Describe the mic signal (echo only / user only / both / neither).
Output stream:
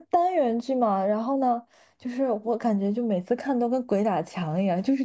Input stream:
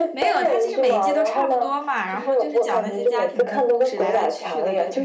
both